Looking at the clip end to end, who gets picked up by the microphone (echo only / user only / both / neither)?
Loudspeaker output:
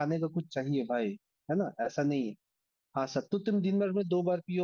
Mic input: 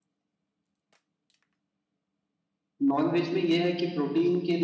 user only